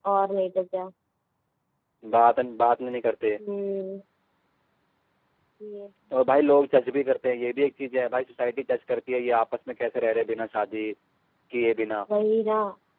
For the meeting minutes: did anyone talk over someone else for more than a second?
No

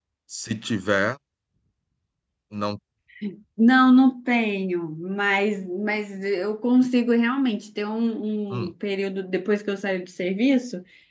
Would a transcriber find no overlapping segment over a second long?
Yes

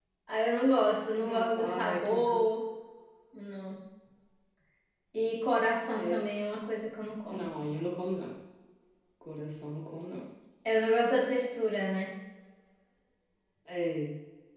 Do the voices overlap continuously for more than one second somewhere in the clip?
Yes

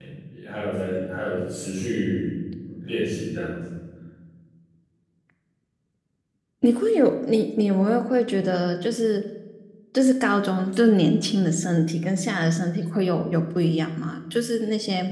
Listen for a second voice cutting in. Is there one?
No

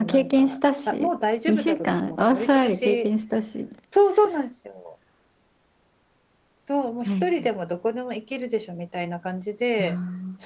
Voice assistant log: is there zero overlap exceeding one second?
No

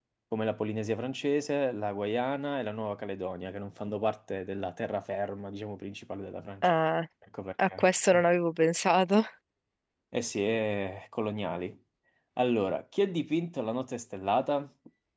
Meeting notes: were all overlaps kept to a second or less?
Yes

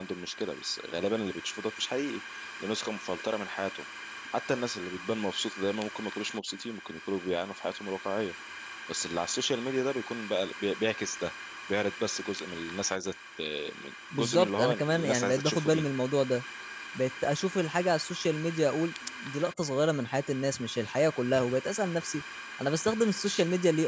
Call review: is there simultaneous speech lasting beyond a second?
Yes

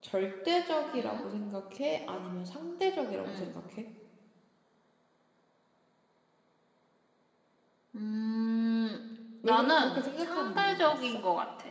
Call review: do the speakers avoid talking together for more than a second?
No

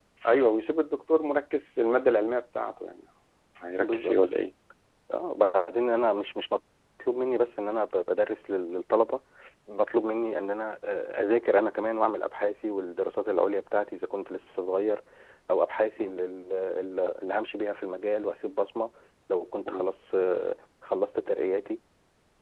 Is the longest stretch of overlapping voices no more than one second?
Yes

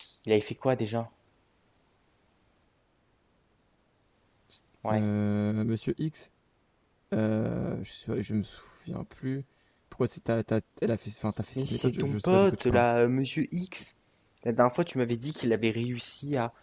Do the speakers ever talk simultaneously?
Yes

